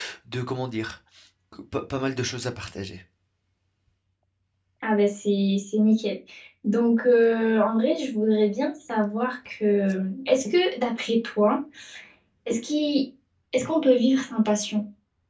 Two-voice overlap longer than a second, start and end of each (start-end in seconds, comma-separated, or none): none